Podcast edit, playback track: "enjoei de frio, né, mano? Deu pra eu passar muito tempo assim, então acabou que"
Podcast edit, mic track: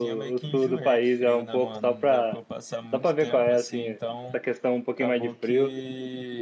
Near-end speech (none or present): present